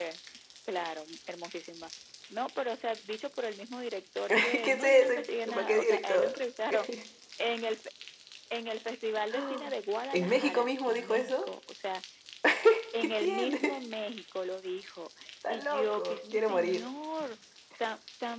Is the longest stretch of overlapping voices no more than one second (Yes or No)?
No